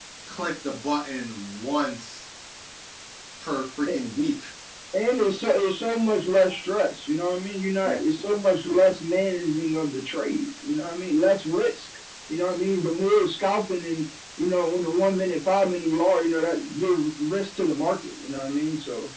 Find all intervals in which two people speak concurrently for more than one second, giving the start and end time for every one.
none

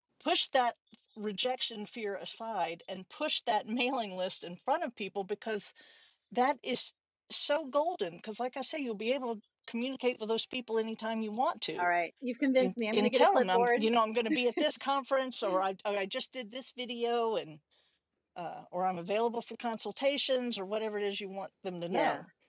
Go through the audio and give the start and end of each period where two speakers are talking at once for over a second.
12.6-13.8

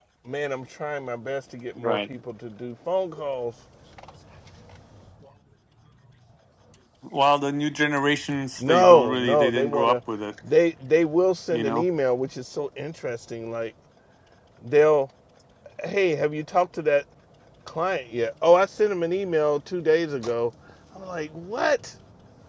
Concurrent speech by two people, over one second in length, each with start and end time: 8.6-10.0

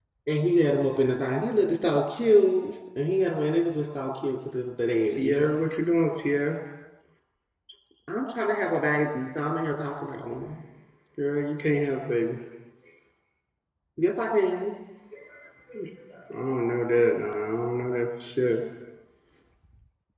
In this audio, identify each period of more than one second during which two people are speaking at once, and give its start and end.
none

